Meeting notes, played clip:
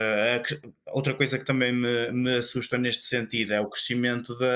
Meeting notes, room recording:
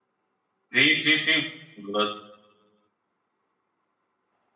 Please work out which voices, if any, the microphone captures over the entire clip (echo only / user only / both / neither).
user only